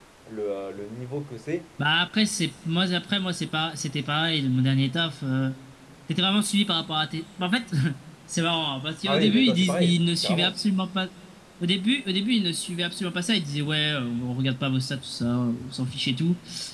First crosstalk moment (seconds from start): 9.0 s

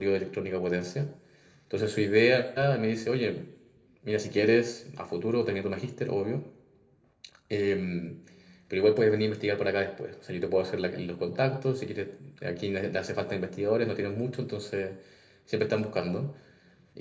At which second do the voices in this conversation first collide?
none

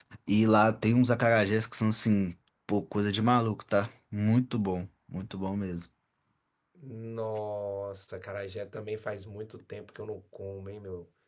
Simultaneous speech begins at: none

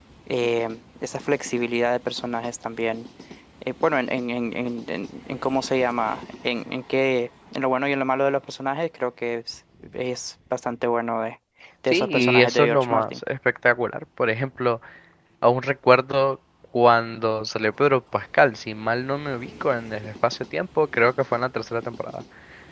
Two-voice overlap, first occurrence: 11.9 s

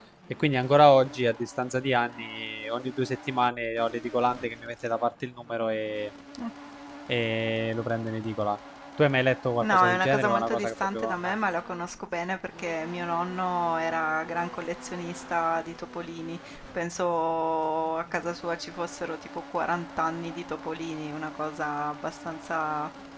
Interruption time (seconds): 9.6 s

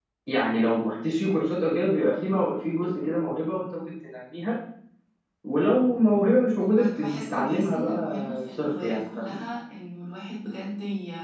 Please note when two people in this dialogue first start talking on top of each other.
6.8 s

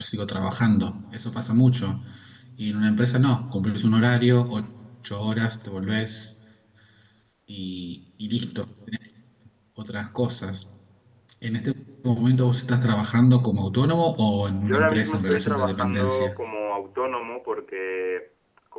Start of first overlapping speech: 14.6 s

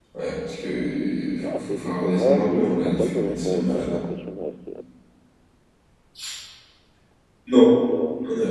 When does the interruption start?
1.4 s

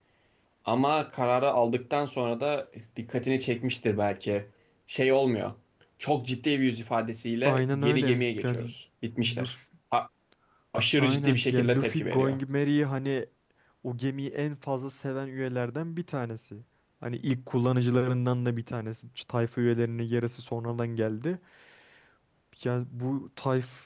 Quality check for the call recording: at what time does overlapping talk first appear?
7.5 s

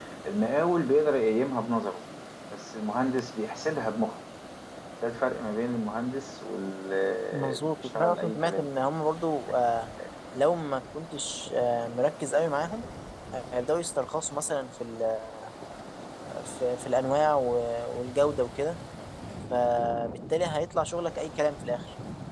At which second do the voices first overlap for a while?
7.3 s

